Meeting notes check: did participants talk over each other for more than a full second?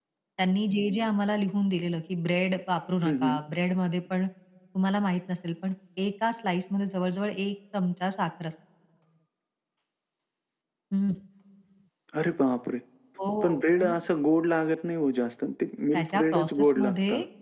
Yes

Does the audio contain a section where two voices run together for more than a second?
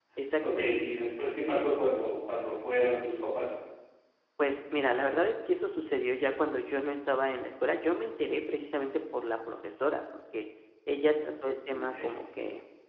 No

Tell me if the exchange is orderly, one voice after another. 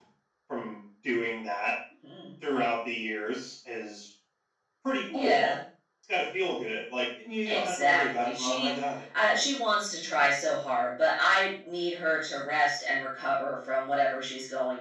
No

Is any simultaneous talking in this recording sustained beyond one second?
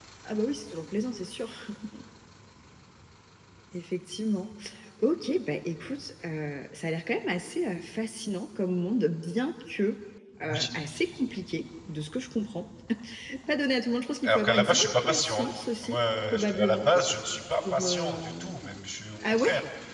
Yes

